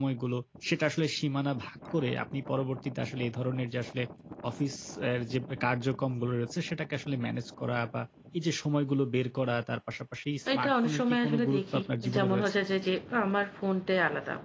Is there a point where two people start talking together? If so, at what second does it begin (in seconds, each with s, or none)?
10.5 s